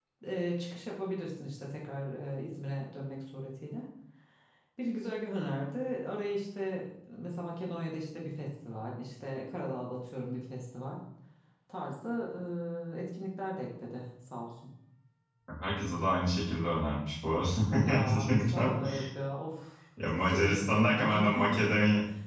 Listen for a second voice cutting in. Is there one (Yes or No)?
Yes